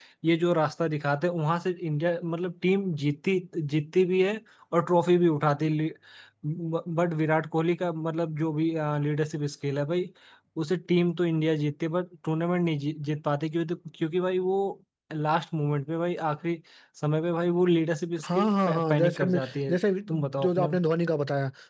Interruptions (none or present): present